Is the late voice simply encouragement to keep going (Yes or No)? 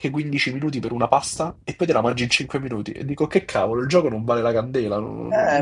No